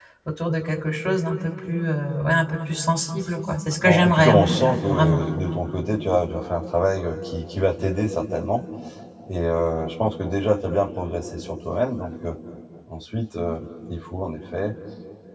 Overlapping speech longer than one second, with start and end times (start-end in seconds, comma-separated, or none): 3.8-5.2